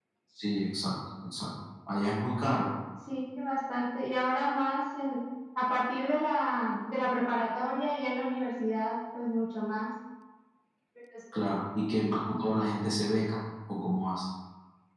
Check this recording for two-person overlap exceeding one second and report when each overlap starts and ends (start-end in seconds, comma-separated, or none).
none